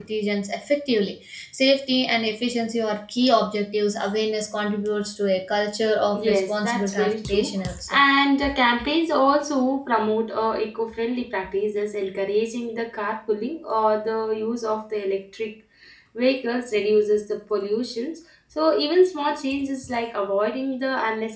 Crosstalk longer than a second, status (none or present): present